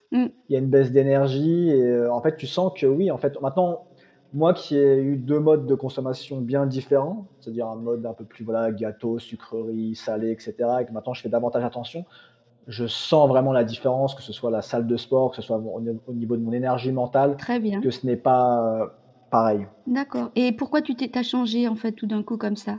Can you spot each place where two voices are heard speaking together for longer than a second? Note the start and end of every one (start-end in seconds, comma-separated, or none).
none